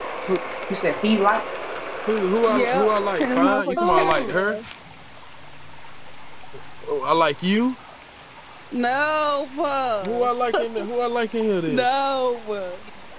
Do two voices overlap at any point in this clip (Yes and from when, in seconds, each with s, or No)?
Yes, from 2.5 s